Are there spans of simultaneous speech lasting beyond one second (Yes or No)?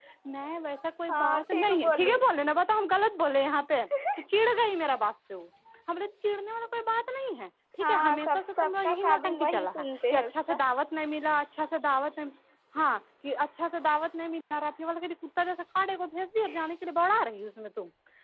Yes